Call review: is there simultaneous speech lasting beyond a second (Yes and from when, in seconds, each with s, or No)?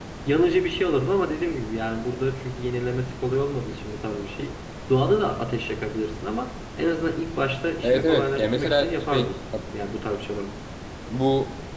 Yes, from 7.8 s